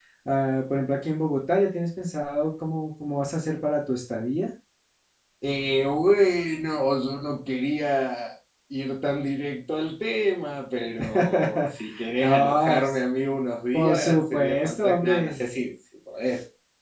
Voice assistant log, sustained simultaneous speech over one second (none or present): present